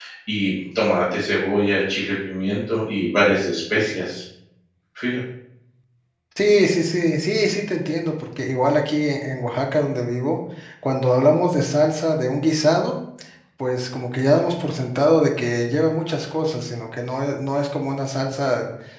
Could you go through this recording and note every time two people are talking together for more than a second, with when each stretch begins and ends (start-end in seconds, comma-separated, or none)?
none